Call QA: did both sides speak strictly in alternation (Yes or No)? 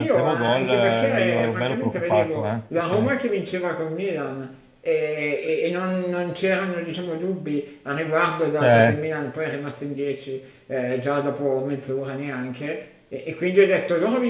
No